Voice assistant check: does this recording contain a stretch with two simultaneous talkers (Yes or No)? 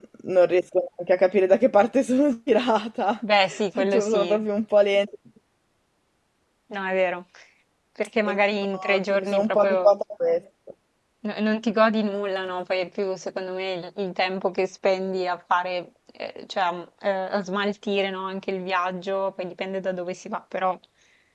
Yes